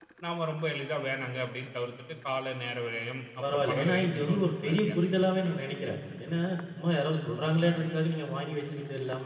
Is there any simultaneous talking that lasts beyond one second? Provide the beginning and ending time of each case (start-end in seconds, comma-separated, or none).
3.4-5.3